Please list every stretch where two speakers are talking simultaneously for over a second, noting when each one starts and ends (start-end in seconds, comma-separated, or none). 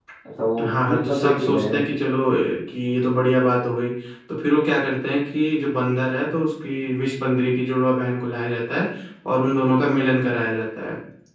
0.6-1.8